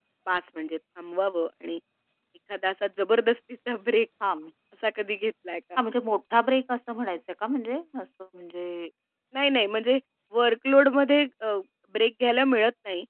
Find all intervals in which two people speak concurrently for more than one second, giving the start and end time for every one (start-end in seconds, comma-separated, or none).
none